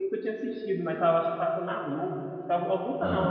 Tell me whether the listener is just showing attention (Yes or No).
Yes